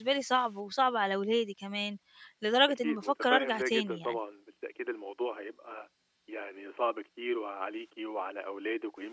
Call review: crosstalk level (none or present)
present